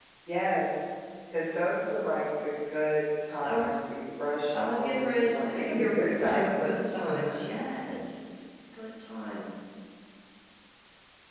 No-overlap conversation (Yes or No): No